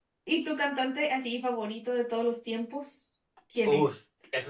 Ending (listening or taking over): taking over